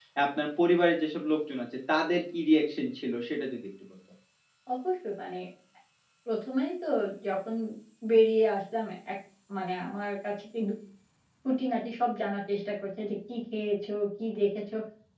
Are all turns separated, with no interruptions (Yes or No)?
Yes